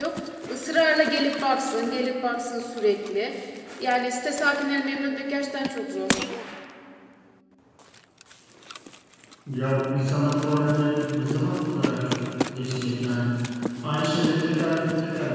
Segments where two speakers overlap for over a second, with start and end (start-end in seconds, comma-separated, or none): none